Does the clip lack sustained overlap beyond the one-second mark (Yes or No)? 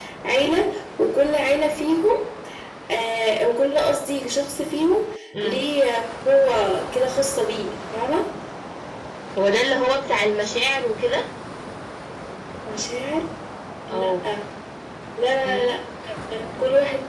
Yes